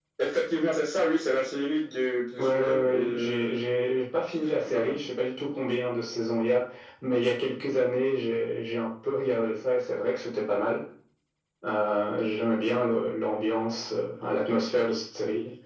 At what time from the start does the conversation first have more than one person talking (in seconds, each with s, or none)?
2.4 s